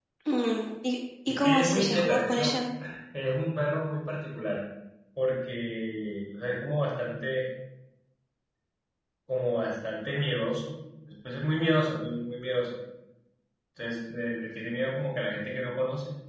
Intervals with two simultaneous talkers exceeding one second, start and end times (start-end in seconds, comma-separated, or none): 1.3-2.6